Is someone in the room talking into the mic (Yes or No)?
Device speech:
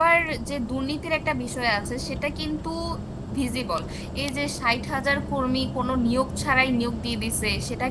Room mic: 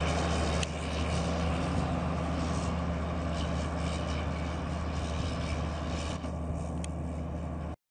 No